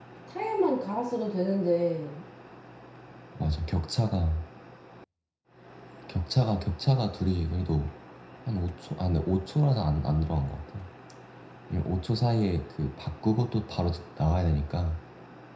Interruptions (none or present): none